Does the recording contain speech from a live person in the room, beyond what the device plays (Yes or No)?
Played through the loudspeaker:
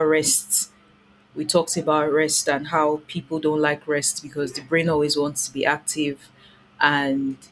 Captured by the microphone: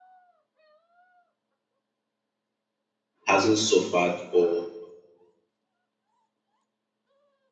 Yes